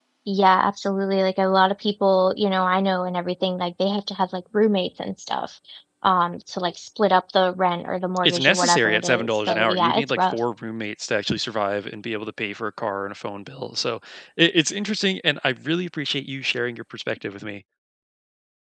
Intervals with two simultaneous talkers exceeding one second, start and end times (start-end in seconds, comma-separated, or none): 8.2-10.4